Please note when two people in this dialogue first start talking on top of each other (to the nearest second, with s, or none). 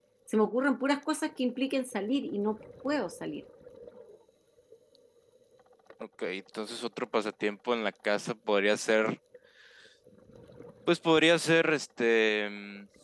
none